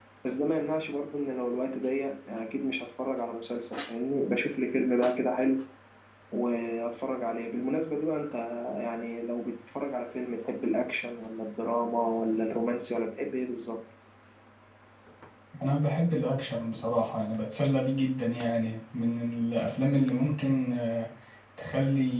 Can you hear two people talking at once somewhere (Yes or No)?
No